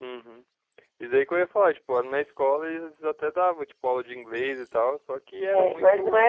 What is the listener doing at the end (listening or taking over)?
taking over